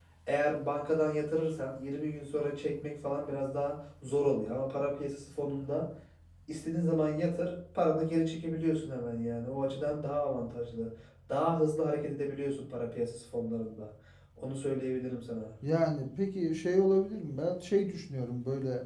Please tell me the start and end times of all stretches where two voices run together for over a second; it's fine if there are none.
none

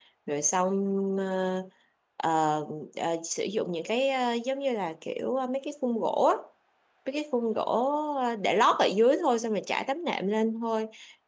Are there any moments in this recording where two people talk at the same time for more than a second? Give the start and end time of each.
none

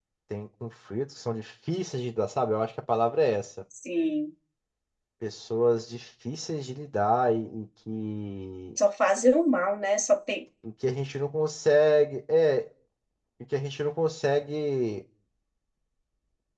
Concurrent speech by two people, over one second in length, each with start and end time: none

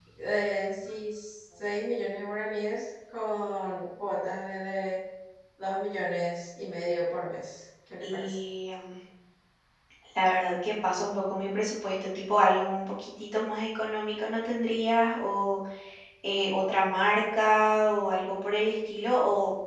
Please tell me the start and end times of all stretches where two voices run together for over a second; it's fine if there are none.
none

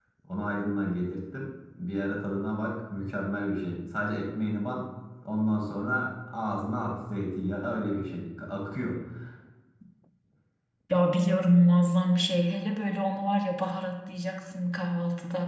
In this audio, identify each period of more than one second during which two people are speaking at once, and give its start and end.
none

